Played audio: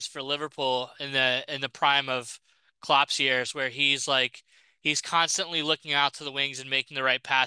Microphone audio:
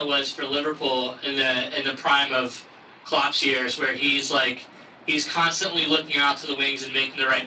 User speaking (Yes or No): No